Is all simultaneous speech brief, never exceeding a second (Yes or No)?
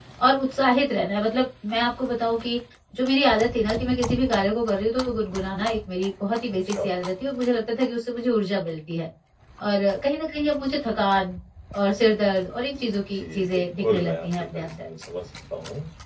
No